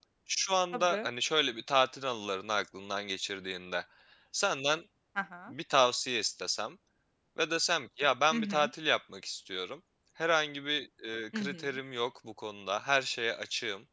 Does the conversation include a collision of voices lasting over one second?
No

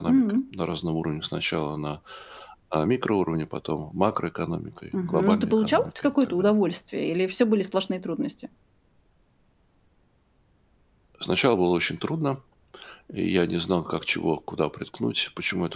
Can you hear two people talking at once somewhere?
Yes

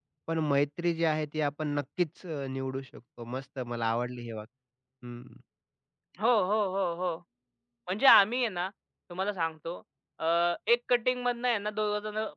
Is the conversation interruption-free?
Yes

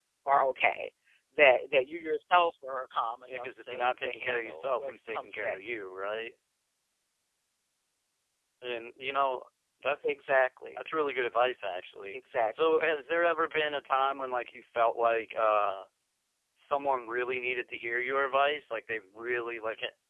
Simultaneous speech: Yes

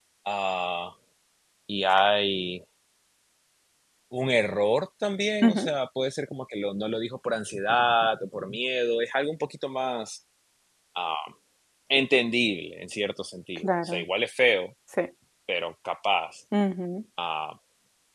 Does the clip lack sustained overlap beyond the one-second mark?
Yes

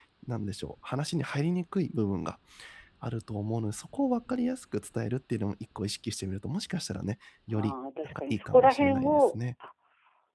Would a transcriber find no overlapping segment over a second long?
No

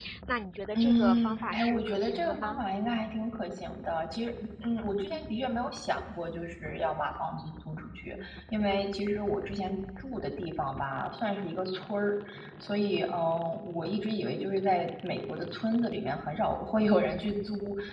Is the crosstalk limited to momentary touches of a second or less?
No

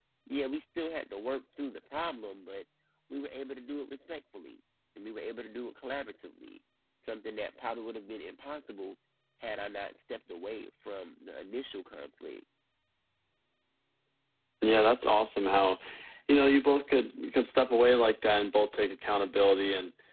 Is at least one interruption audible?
No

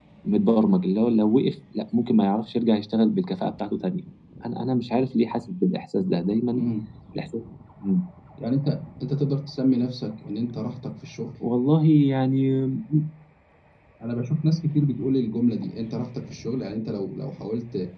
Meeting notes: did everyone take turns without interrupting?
Yes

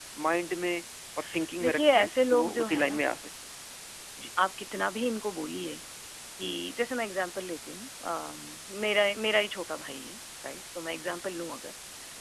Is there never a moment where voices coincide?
No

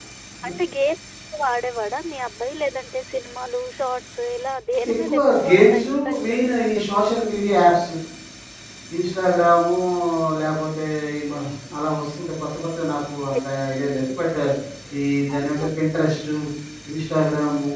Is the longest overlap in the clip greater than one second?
Yes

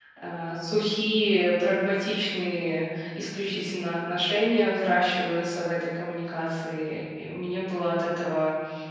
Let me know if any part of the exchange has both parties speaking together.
No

